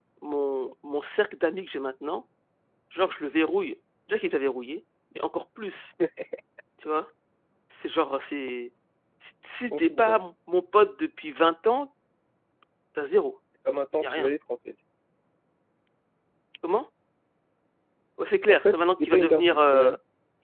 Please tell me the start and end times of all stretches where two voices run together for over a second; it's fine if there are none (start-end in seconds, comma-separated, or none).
18.5-19.9